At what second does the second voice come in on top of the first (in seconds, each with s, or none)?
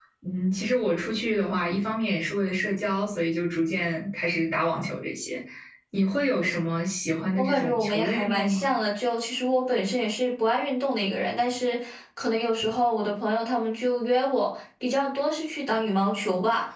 7.4 s